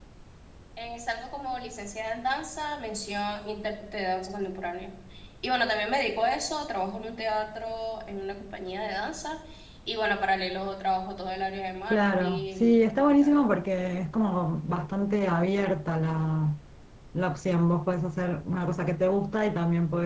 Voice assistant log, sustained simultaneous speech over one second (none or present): present